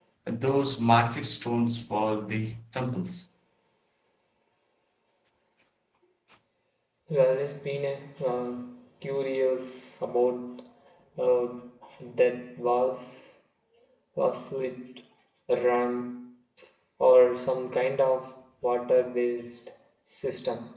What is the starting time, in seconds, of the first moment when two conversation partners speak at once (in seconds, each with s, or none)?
none